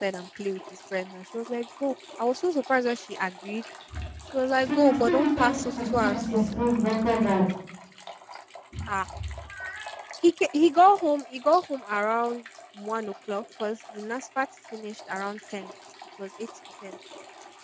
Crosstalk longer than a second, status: present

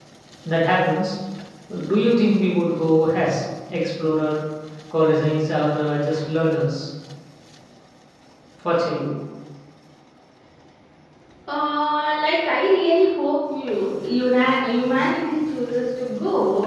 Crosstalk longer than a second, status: none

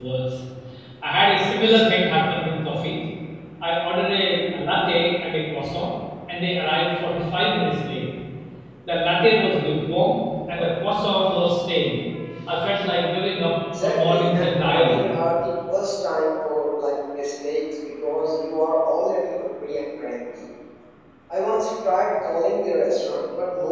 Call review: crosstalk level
present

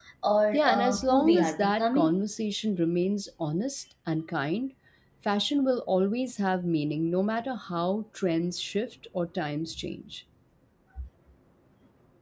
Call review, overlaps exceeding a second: present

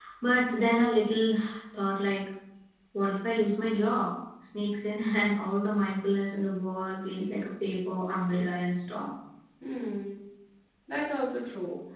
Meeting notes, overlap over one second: none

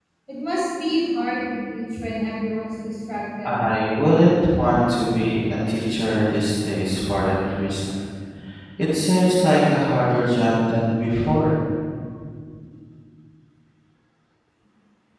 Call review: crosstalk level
none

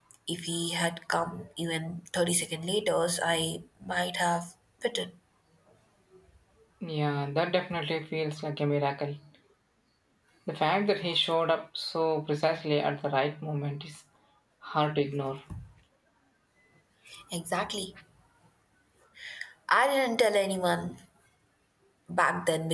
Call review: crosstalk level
none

